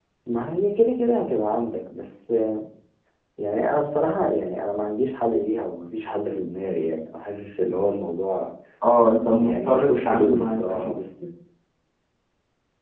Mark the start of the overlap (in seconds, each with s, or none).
9.4 s